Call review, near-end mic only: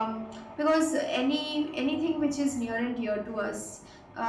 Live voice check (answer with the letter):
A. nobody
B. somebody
A